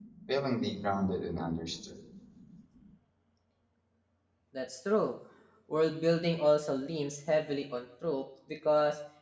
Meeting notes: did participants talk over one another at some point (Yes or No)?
No